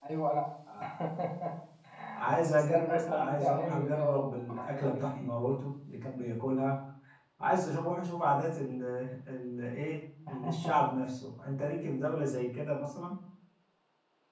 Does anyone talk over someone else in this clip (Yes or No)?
Yes